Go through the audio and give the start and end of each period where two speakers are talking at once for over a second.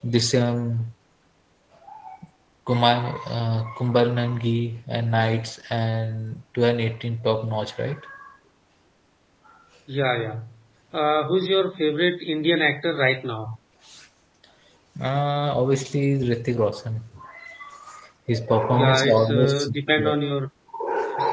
18.7-20.1

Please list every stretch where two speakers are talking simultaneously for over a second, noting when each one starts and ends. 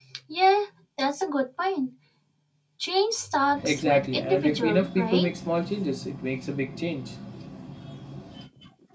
3.6-5.3

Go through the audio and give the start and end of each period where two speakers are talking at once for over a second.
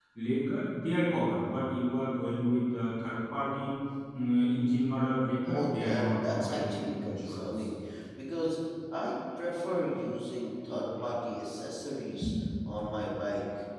5.4-7.4

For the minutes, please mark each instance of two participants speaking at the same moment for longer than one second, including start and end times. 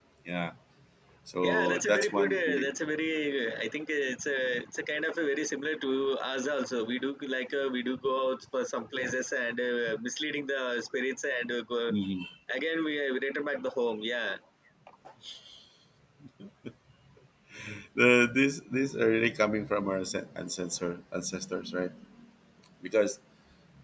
1.4-2.7

